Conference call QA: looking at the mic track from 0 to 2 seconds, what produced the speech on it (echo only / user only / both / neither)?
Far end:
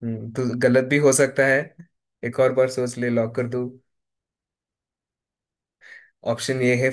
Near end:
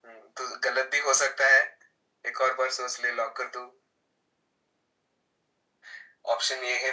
echo only